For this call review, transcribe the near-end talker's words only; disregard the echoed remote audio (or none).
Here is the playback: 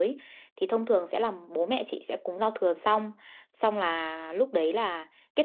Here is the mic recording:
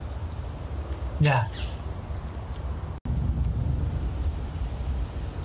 dạ